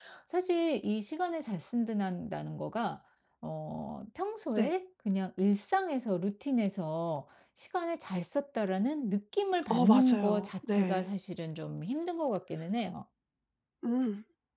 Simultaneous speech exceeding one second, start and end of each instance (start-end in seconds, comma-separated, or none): 9.7-11.0